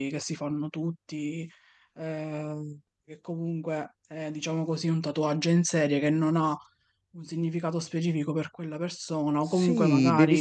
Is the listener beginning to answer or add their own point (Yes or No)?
Yes